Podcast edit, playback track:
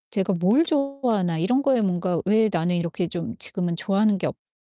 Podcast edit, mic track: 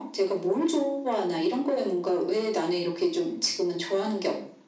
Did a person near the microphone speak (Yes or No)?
No